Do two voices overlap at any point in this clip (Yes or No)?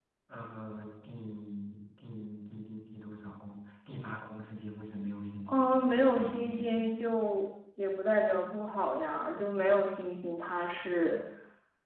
Yes